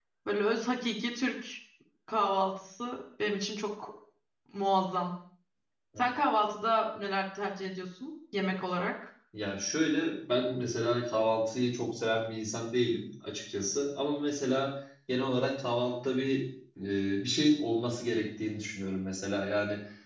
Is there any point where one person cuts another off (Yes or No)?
No